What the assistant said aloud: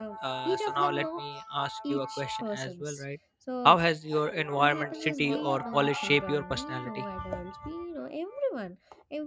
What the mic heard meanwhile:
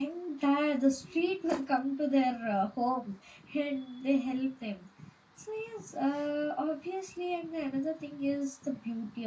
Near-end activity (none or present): present